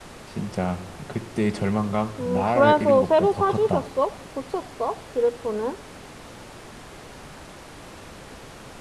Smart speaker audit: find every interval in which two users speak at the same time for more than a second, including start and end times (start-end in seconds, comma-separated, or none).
2.2-3.8